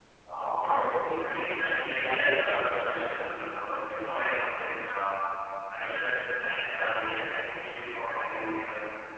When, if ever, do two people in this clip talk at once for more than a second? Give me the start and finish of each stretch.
1.8-3.3

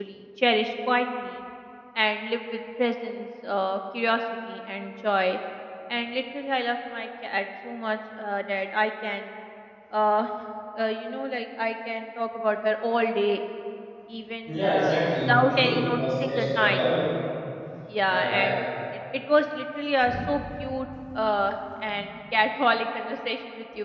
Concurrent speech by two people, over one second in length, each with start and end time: 14.4-16.8

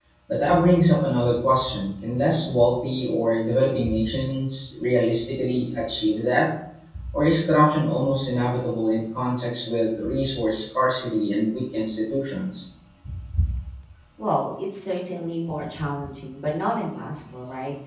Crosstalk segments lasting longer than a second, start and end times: none

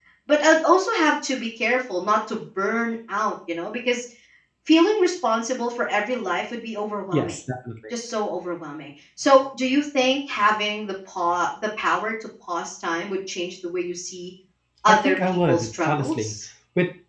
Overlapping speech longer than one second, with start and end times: 14.9-16.3

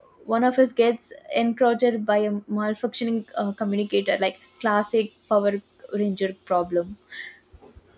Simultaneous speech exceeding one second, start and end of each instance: none

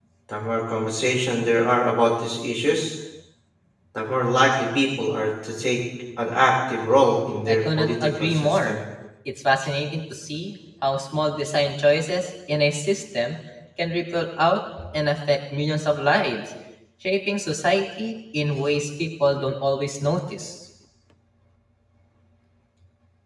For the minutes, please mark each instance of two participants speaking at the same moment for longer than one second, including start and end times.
7.5-8.8

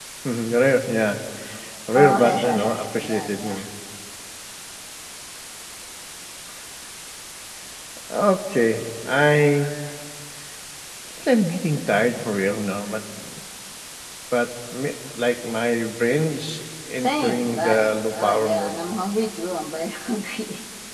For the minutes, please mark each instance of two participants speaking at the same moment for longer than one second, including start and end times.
1.9-3.6, 17.0-18.8

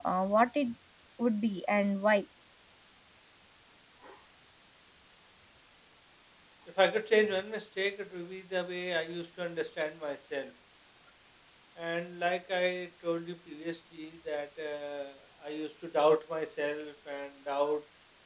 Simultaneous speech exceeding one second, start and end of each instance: none

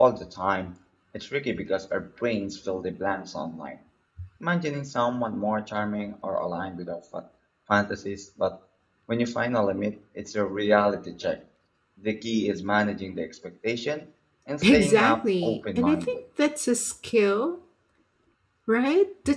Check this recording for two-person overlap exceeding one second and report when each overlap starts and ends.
14.6-16.2

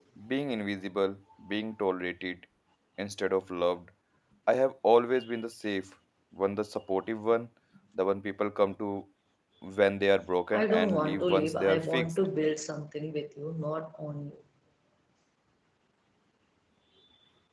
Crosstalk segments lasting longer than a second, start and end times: 10.5-12.2

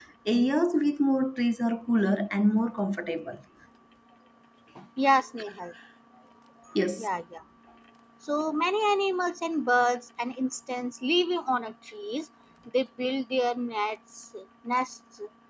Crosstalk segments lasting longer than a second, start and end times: none

